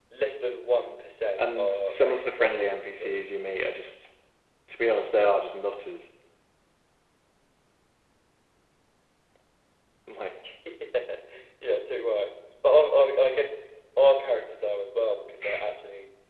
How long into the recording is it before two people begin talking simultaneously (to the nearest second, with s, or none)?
1 s